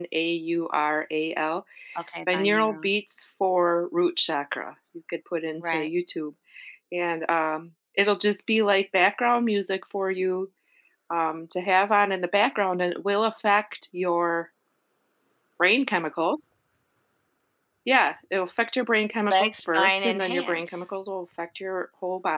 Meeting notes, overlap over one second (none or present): present